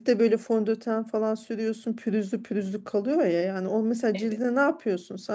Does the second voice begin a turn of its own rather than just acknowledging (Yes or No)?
No